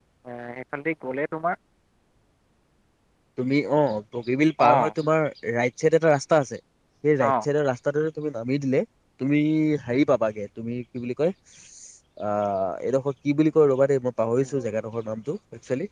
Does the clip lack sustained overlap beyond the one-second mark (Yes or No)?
Yes